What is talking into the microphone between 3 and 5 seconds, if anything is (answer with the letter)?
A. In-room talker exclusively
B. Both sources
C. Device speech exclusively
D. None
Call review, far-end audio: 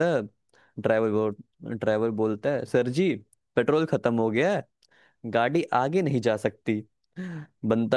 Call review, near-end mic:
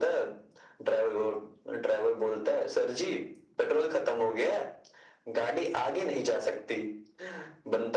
C